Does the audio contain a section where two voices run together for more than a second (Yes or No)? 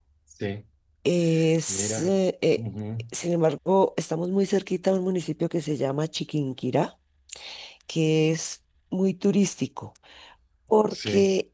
No